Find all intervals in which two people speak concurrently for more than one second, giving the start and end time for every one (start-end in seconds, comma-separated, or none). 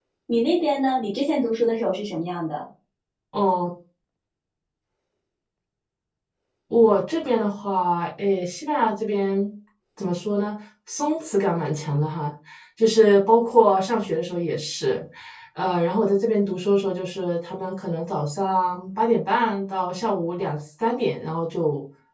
none